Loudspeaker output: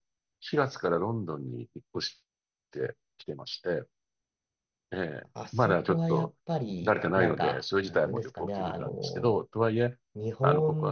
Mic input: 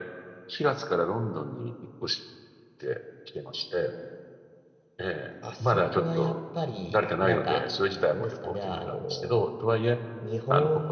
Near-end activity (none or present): none